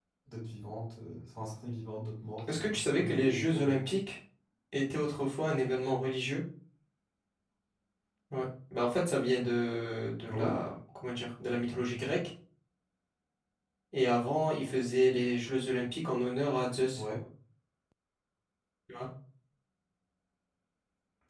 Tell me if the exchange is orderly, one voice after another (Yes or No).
No